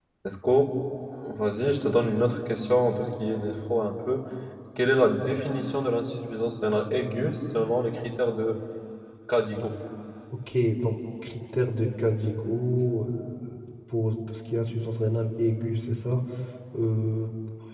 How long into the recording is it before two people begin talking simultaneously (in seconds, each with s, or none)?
none